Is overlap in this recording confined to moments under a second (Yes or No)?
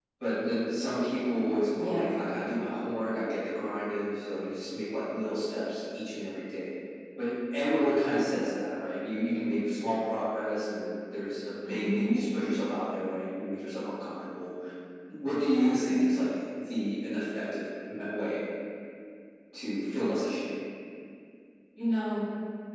Yes